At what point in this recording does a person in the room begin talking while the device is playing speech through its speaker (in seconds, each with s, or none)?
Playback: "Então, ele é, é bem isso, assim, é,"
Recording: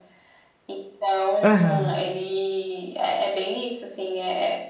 1.4 s